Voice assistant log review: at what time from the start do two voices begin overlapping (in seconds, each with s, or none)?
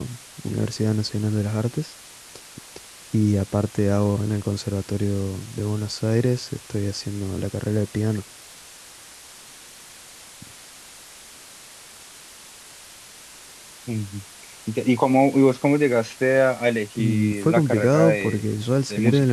17.0 s